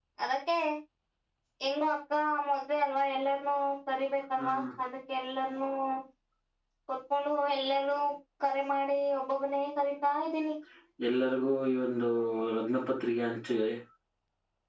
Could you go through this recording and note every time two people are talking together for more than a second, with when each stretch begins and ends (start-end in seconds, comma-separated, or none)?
none